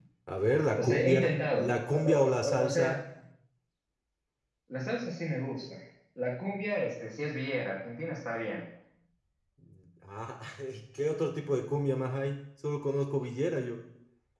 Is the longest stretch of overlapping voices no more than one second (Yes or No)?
No